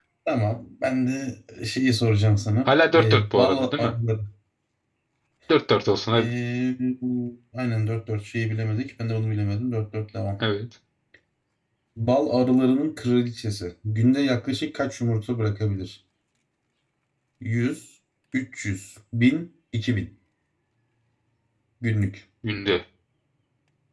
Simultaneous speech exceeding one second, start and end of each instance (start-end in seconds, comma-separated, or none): 2.6-3.9